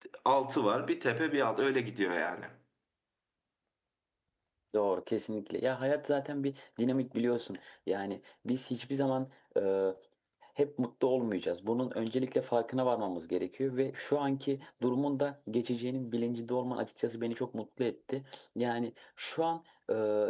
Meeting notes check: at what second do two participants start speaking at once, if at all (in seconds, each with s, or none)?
none